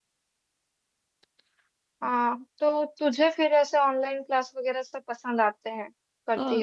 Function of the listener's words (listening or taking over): taking over